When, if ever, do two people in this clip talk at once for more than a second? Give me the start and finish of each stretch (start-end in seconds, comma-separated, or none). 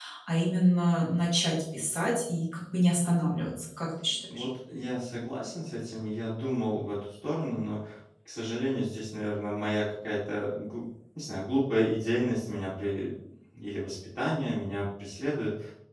none